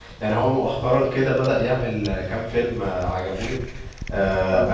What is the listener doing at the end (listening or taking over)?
listening